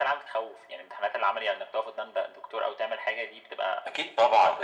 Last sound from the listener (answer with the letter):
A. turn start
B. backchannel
A